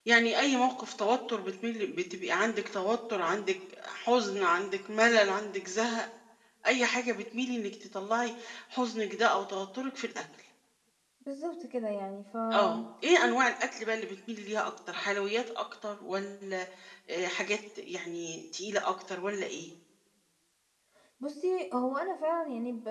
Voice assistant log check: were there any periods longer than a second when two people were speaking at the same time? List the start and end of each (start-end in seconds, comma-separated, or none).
none